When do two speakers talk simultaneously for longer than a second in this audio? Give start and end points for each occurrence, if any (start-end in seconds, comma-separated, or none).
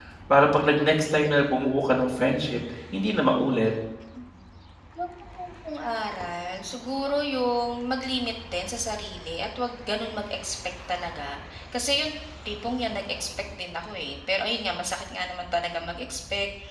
none